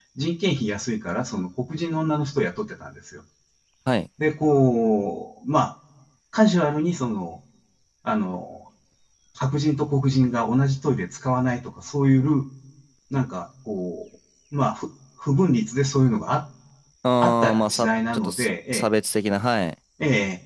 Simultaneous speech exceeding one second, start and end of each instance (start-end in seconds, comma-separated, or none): 17.2-18.9